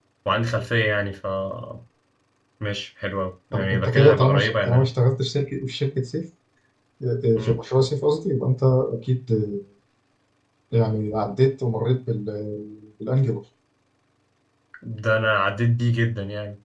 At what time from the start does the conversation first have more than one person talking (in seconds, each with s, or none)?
3.5 s